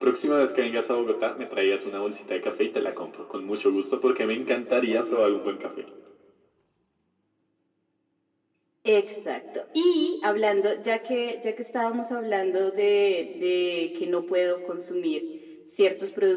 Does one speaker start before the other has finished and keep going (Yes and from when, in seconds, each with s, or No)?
No